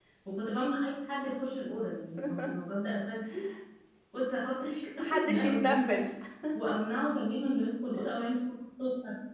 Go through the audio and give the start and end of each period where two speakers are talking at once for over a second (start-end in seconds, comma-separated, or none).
4.5-6.0